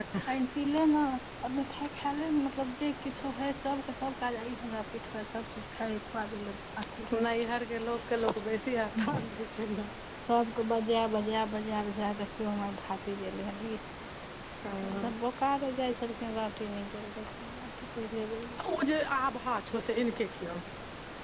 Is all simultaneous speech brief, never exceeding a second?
Yes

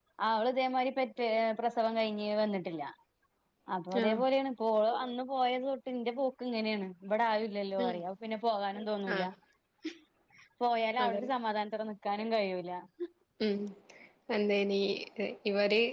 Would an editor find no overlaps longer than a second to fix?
Yes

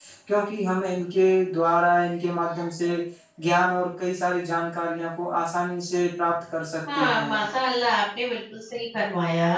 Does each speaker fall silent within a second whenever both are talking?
Yes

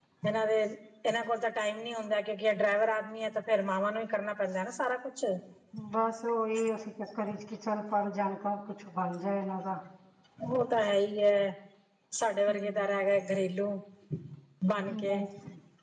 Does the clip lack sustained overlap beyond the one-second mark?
Yes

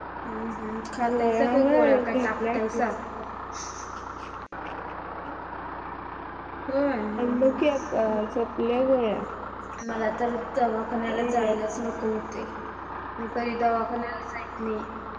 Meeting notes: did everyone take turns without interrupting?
No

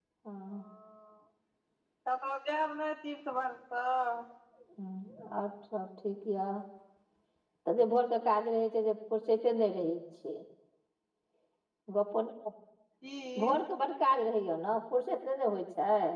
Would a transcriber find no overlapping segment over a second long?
Yes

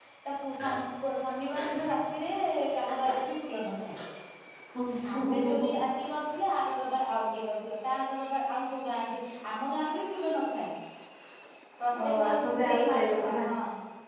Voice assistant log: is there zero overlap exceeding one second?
No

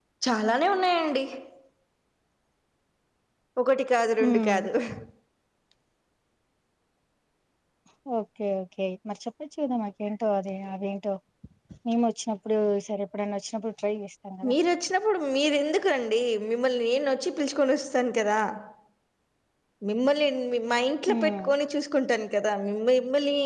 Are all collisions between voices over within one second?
Yes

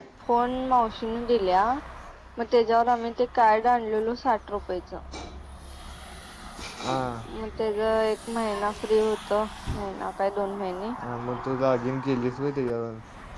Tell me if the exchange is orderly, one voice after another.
Yes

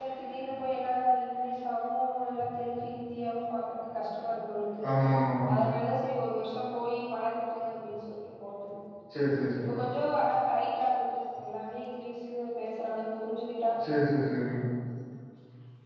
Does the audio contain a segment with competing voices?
No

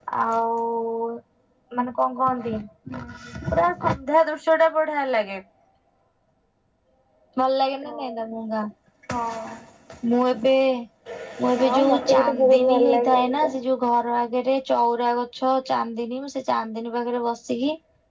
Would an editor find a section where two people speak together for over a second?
Yes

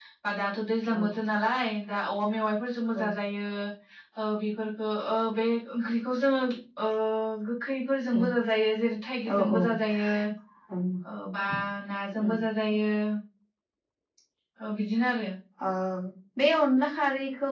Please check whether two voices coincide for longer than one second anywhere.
No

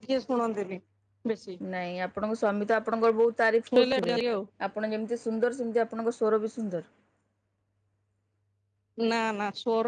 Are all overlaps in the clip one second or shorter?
Yes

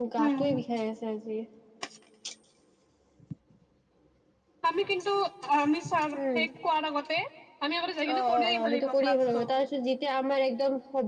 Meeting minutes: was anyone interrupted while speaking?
Yes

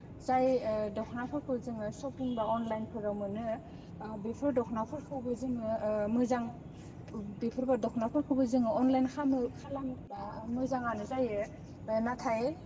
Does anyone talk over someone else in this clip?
No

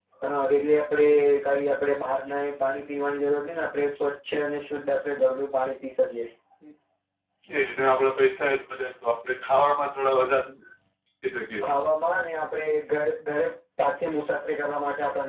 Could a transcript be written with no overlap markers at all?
Yes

